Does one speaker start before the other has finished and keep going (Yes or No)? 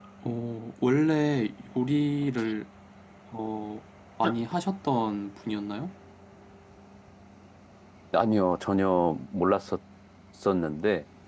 No